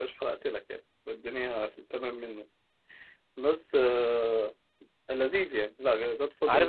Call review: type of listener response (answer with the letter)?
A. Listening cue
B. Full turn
B